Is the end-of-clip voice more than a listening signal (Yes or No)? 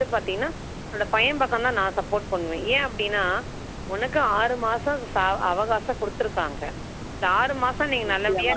No